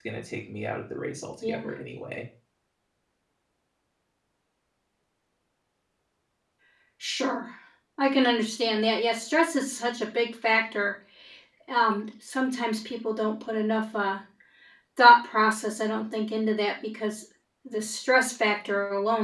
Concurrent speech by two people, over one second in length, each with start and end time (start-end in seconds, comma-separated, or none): none